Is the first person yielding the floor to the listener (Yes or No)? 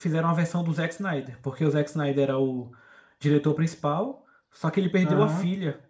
No